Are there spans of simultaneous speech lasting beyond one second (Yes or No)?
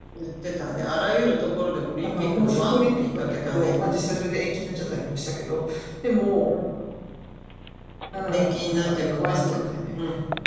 Yes